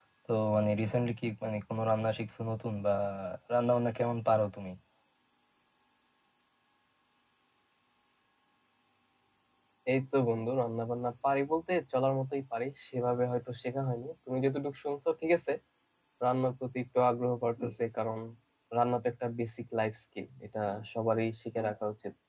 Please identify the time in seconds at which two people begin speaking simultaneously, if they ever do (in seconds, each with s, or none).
none